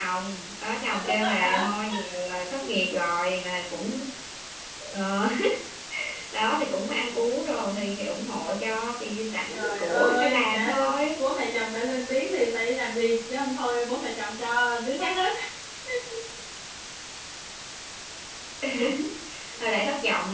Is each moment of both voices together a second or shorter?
No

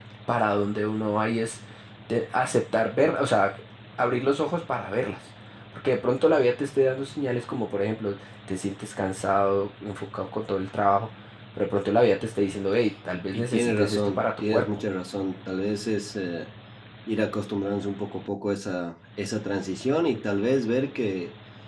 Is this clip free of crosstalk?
No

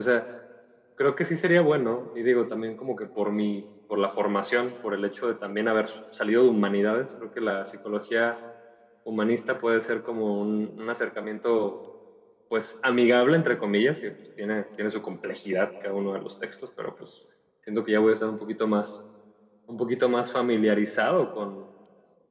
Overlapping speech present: No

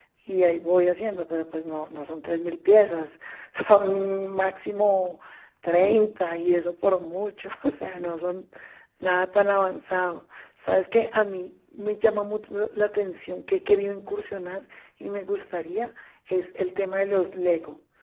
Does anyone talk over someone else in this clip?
No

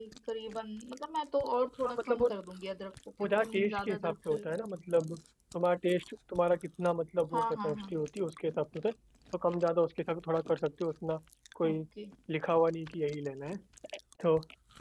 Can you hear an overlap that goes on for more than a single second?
Yes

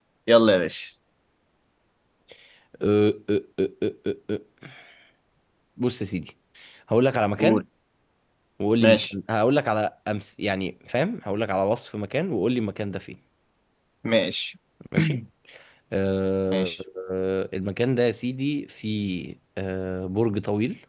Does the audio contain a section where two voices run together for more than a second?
No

